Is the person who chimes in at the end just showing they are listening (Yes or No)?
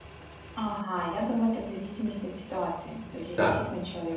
Yes